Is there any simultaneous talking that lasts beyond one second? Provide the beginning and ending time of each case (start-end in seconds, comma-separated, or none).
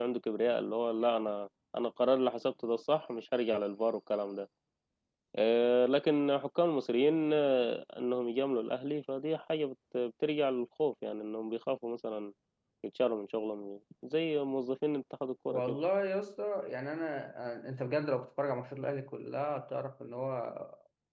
none